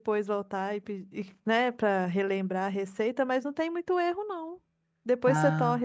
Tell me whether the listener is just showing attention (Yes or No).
Yes